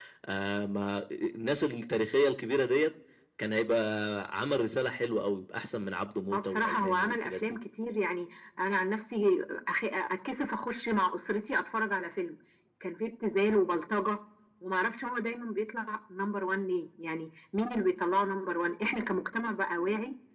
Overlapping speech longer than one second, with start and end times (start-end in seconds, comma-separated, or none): 6.3-7.6